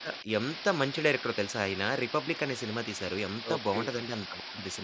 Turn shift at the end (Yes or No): No